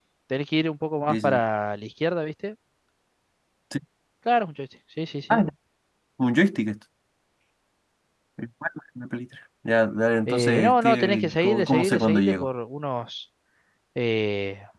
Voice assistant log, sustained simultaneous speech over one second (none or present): present